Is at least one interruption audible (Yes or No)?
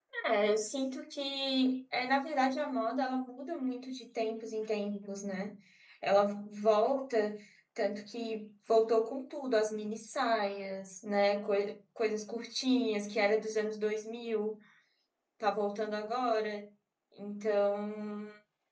No